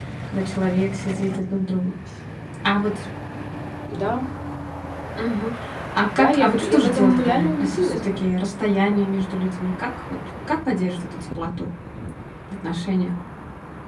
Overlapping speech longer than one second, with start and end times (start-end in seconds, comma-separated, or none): 6.1-8.0